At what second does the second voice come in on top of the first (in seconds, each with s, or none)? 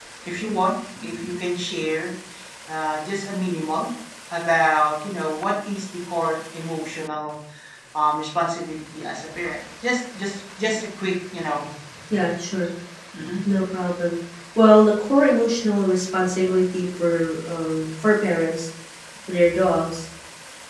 none